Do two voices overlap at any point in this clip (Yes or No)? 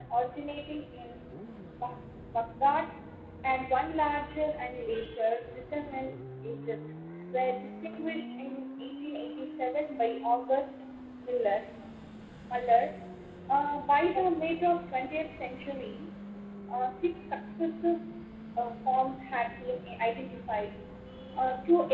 No